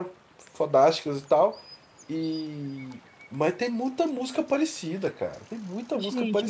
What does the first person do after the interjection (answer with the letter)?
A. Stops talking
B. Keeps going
A